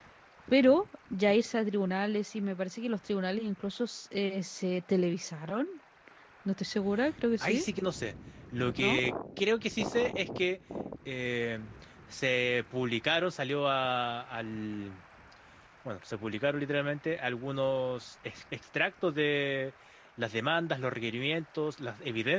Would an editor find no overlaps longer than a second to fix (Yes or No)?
Yes